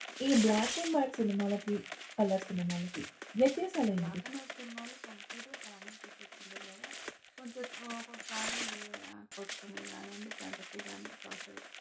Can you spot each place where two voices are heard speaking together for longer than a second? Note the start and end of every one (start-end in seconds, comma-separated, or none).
none